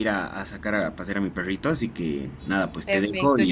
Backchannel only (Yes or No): No